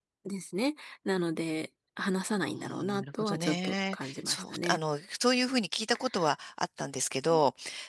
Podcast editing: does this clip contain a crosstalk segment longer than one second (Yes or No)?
Yes